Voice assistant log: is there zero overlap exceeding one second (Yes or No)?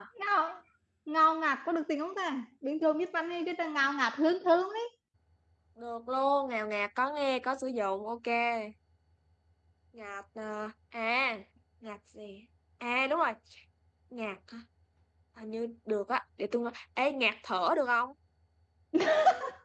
Yes